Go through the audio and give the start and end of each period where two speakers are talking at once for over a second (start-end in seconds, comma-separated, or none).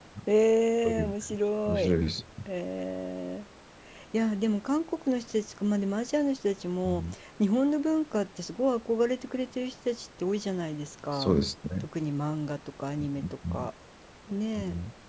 none